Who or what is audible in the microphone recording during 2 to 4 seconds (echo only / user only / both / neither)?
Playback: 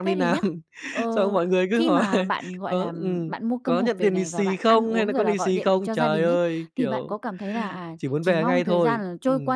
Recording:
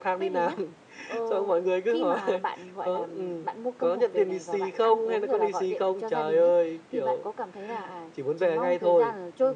echo only